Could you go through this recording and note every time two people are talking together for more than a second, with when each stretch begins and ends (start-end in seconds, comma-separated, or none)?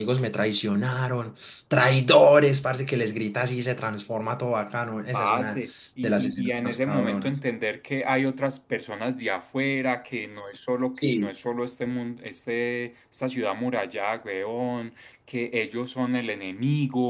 6.0-7.4